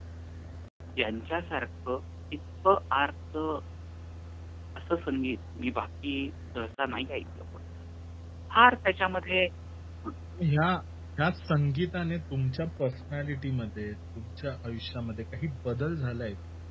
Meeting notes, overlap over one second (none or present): none